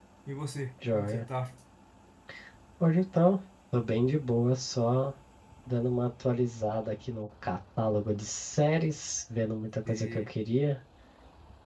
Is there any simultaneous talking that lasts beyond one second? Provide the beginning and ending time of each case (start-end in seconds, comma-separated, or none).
none